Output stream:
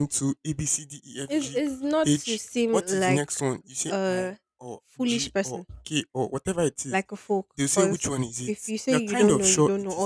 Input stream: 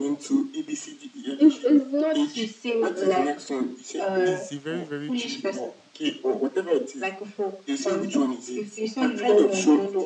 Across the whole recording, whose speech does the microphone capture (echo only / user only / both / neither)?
both